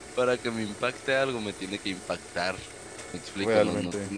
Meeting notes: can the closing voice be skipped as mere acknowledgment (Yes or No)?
Yes